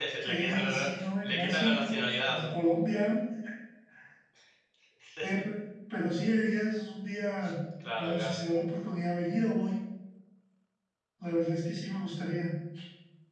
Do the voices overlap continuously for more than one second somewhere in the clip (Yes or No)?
Yes